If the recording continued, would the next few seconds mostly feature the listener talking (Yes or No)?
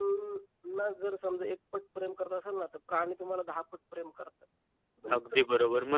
Yes